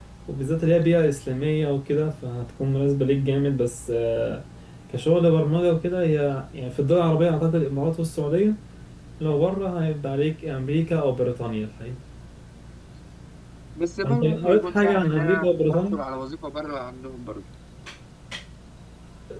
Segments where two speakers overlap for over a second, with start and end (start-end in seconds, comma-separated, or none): 14.0-16.0